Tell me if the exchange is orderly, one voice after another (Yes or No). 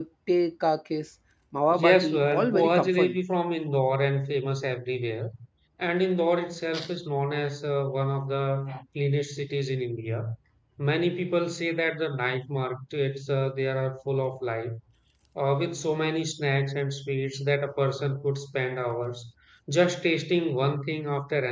No